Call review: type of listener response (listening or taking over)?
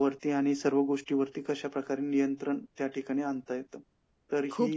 taking over